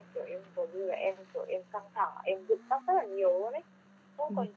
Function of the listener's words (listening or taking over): listening